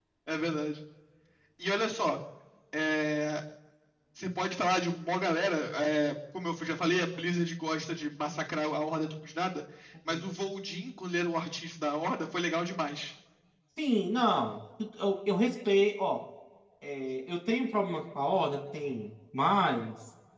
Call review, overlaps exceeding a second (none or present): none